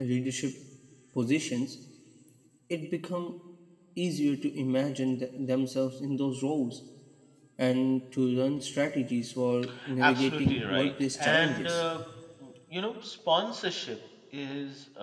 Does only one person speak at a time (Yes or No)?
No